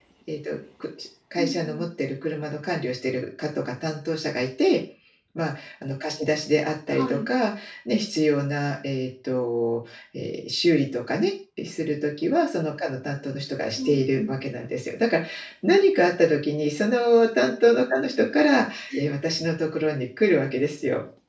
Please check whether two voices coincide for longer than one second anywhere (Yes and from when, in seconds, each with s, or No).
No